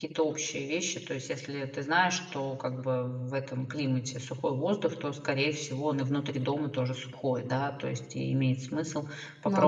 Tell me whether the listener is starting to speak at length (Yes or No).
No